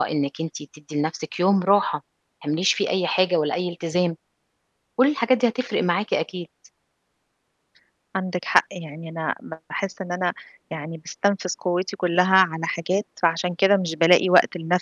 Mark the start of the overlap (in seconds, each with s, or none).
none